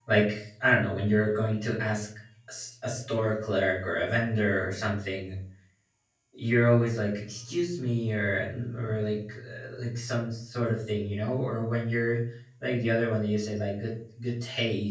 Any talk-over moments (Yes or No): No